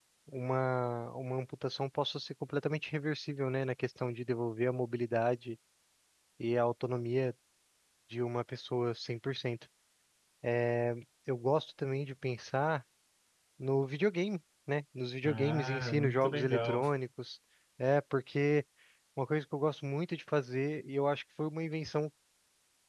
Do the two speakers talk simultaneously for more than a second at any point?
Yes, from 15.2 s

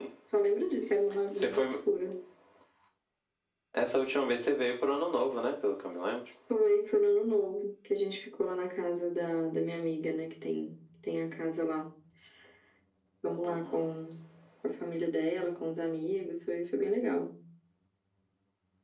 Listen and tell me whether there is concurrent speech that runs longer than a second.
No

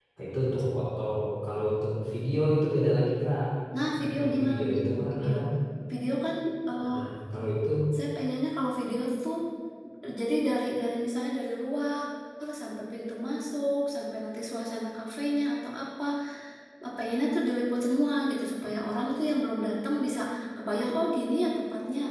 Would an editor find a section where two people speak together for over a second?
Yes, from 3.9 s

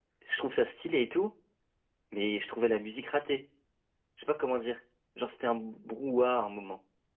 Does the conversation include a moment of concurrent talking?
No

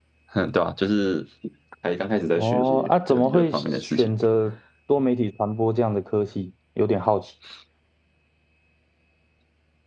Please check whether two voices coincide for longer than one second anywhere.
Yes, from 2.4 s

